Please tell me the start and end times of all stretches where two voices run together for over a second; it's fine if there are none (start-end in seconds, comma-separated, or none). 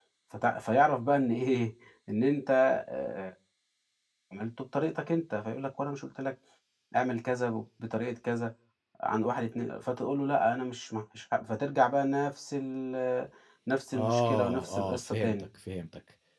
13.9-15.5